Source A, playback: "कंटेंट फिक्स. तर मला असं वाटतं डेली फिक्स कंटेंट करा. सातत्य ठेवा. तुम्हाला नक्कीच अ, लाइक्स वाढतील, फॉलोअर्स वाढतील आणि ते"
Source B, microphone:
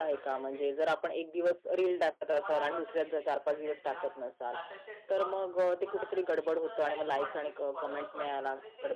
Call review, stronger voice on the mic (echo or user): user